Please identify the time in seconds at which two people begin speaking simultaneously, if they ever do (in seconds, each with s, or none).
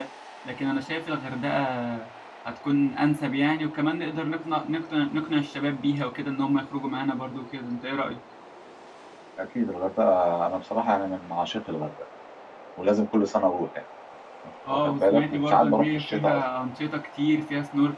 14.7 s